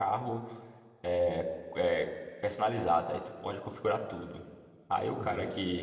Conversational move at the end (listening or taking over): listening